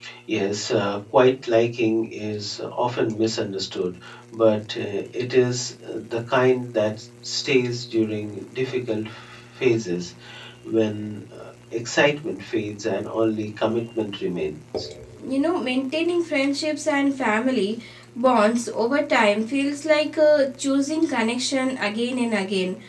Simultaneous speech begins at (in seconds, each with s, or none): none